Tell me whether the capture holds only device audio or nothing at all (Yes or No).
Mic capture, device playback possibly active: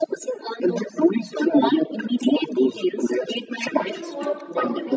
No